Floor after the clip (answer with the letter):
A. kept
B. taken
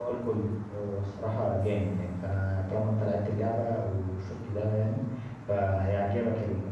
A